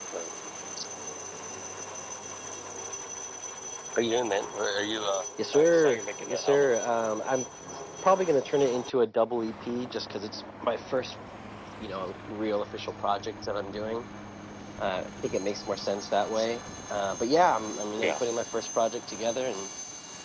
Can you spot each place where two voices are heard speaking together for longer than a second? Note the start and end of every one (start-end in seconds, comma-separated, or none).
5.5-6.8